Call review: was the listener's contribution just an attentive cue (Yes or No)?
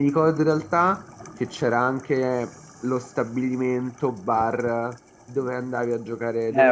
No